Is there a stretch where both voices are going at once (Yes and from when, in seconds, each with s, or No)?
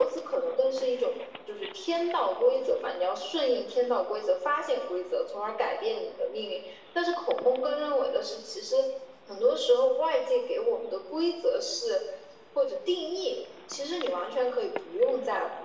No